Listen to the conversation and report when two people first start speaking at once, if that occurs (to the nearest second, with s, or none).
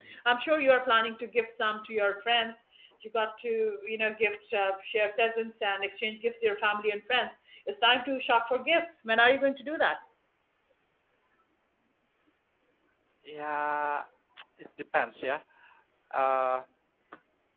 none